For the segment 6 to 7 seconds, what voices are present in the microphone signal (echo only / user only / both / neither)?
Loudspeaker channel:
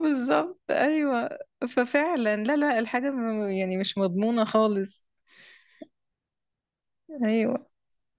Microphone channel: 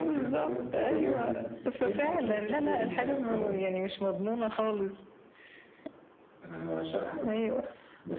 user only